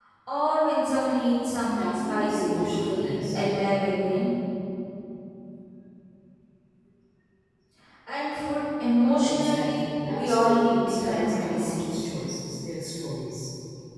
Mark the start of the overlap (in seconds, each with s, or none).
1.7 s